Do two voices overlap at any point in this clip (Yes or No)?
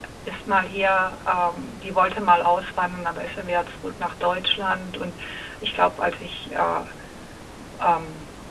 No